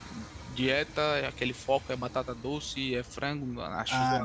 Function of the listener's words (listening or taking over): taking over